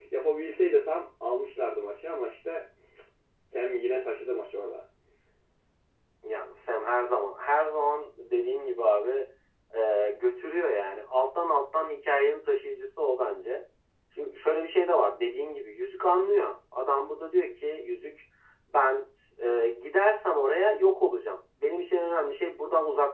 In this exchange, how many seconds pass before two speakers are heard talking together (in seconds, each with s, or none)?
none